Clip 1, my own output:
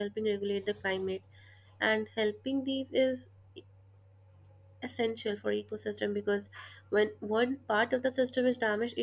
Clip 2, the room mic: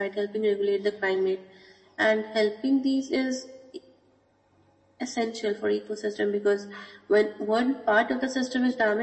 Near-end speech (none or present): none